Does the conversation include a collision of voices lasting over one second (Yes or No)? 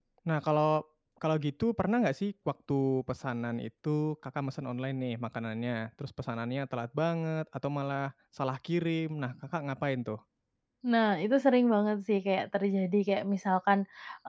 No